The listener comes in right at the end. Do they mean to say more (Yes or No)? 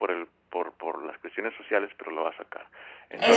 Yes